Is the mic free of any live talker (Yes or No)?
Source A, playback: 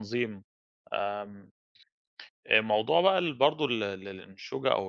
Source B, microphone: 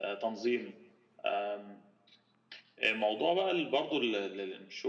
Yes